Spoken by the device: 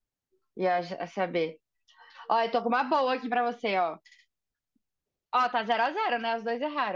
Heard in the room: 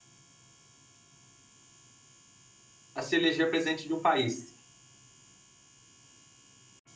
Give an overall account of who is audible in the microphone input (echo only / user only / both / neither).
user only